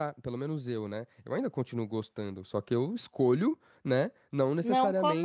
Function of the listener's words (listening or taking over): listening